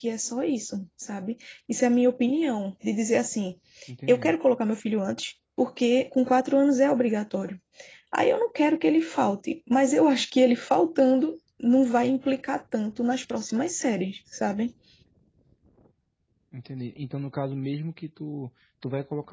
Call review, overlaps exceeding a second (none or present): none